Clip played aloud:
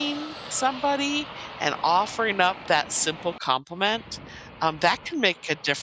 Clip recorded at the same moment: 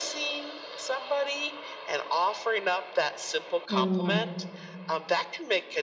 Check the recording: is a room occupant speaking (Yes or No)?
Yes